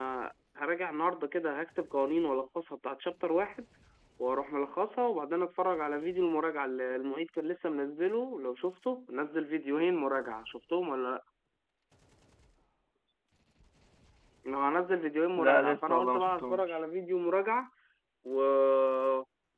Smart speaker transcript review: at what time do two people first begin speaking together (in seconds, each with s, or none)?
15.3 s